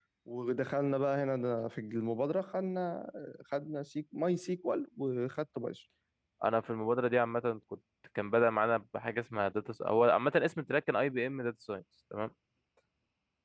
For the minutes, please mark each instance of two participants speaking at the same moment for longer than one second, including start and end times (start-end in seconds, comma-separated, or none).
none